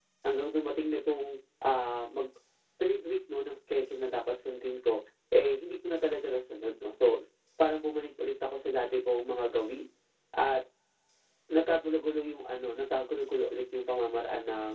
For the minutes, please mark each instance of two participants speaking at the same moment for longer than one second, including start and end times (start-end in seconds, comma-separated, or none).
none